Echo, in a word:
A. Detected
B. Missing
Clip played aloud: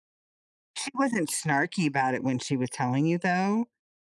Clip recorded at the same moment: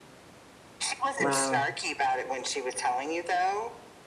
A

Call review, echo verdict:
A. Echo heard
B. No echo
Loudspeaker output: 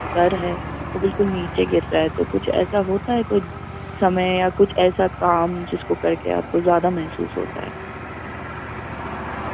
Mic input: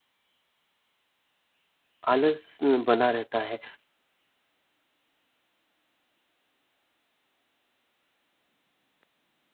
B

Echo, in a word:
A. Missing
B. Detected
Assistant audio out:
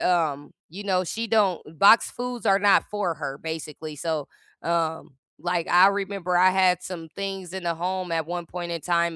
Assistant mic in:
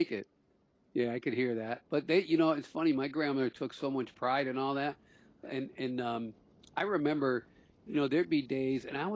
A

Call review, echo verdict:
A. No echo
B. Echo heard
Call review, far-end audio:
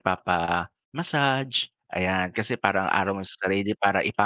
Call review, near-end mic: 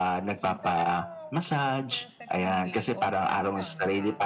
B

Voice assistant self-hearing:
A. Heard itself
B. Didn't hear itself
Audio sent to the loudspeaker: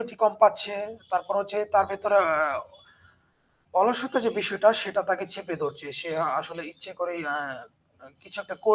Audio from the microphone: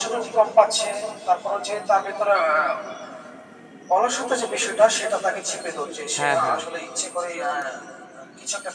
A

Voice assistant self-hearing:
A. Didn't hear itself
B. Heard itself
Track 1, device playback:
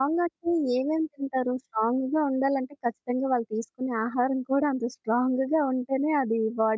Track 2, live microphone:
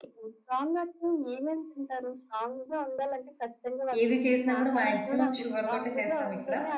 B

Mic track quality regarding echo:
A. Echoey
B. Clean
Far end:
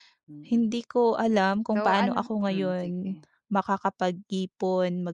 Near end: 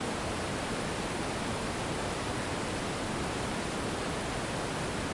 B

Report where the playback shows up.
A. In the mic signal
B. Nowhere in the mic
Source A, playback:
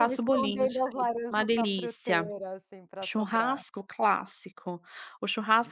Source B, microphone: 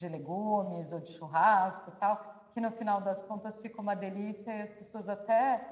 B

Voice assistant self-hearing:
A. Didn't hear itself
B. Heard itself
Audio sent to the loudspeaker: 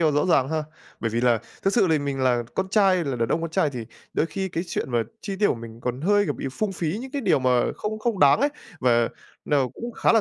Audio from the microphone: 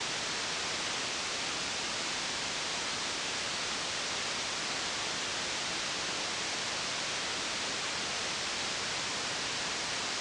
A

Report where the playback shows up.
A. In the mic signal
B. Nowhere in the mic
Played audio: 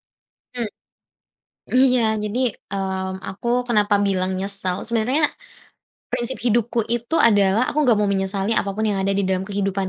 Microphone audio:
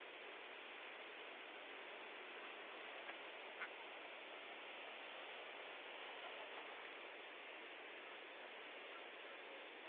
B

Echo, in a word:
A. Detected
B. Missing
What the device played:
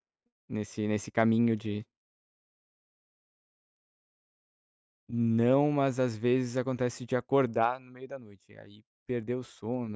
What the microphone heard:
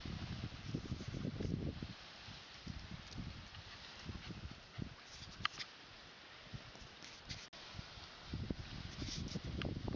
B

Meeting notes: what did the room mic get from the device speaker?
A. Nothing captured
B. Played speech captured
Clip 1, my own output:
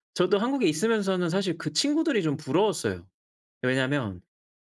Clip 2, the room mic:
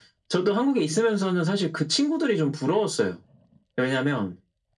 B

